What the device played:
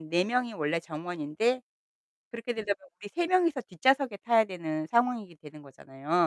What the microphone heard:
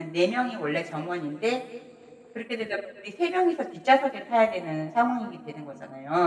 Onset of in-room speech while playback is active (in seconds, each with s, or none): none